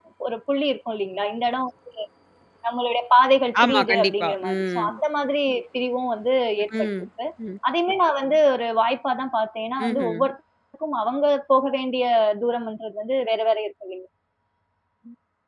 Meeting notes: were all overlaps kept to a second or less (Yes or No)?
No